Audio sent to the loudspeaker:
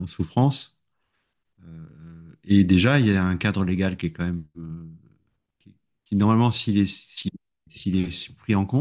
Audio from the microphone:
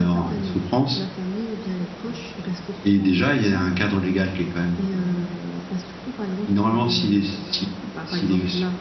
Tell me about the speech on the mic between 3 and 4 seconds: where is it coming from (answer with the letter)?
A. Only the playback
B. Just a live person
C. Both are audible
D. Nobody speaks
C